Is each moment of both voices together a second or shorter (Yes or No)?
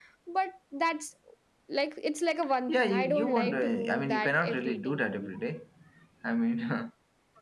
No